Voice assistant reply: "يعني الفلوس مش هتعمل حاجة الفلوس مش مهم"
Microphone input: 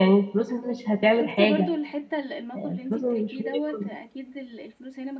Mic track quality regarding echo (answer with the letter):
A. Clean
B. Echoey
B